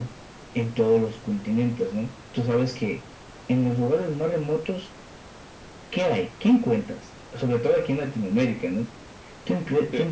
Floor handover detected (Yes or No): No